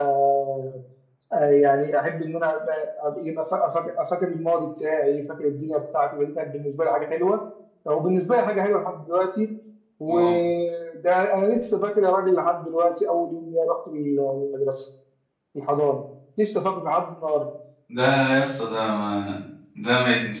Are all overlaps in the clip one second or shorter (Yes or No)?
Yes